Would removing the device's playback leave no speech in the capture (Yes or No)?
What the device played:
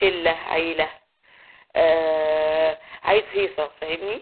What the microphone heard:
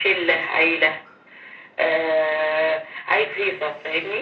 Yes